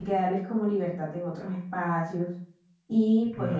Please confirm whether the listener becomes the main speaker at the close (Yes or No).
Yes